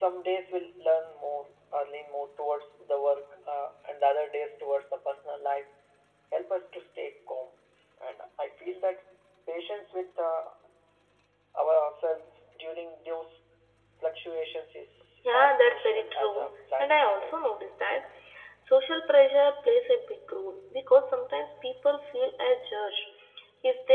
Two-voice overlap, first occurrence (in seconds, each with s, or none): 15.2 s